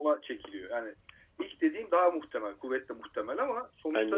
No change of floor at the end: Yes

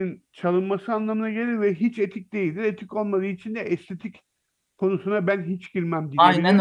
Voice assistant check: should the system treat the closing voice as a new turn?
Yes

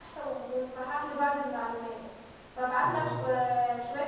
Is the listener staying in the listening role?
Yes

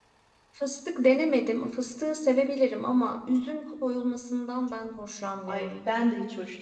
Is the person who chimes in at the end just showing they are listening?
No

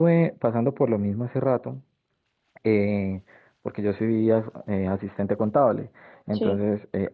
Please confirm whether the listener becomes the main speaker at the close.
No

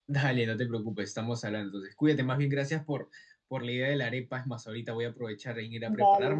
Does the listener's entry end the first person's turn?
No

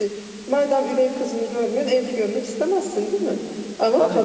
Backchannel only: Yes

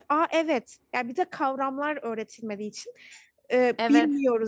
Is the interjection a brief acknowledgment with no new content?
Yes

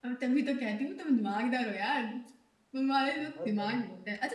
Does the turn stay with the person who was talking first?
Yes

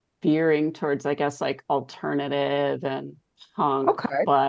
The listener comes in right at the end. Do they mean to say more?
No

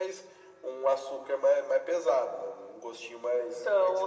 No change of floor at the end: No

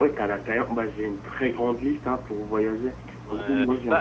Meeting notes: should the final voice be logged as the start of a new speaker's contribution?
Yes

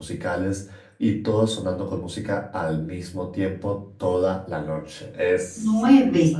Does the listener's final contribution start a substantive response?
Yes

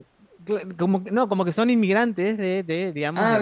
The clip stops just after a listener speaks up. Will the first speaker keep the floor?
No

